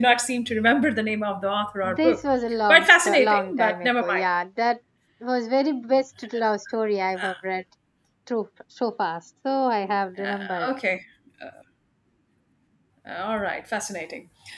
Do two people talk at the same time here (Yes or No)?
Yes